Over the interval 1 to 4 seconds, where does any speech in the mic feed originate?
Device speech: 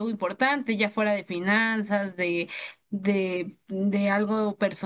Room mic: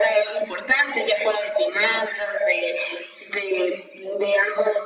echo only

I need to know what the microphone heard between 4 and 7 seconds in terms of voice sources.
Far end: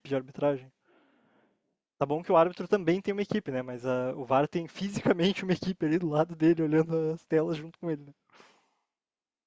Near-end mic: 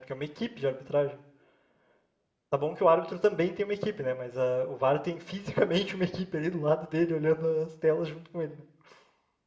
echo only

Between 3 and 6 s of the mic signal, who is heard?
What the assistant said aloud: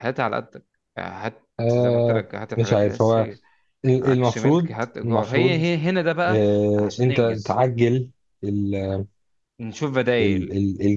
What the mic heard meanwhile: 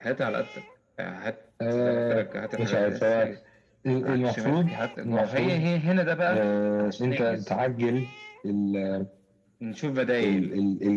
echo only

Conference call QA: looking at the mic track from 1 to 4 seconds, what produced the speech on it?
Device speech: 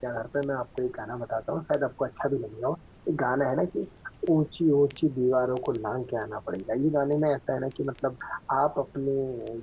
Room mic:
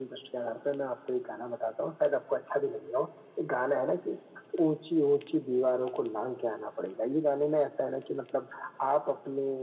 echo only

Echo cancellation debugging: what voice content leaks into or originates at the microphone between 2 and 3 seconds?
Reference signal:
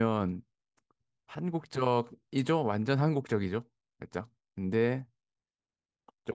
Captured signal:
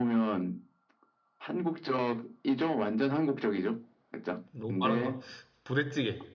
echo only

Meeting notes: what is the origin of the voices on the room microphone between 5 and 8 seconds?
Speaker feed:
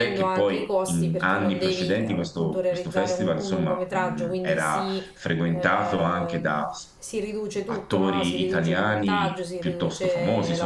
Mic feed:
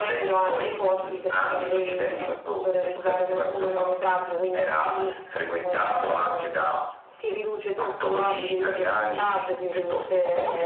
echo only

